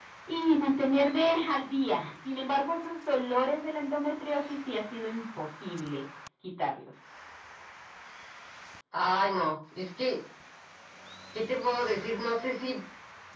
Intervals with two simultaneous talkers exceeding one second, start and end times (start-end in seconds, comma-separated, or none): none